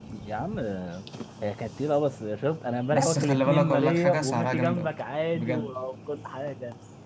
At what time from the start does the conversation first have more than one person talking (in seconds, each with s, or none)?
2.9 s